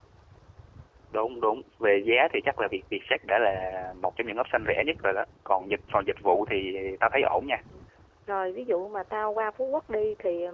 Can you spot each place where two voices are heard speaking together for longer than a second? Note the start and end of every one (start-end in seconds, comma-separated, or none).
none